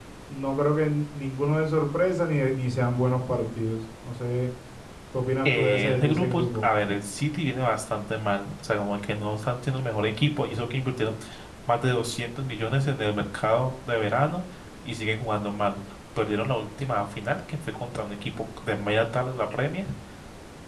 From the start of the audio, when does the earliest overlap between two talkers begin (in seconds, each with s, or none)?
5.5 s